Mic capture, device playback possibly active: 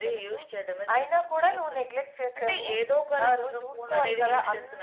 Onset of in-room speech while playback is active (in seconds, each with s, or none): none